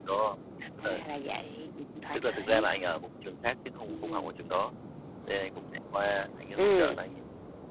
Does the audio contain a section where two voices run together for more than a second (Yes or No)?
No